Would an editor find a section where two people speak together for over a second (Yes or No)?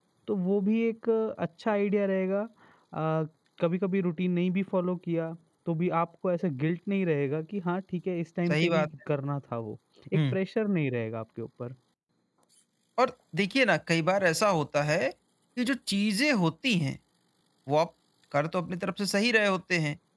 No